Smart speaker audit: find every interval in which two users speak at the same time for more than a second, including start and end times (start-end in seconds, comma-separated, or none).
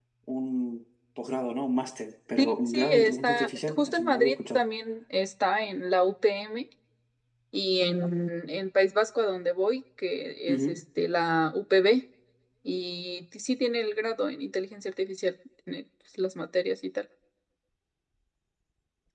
2.4-4.6